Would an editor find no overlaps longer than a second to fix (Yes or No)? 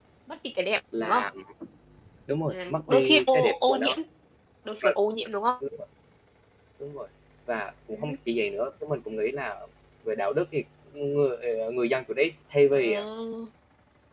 No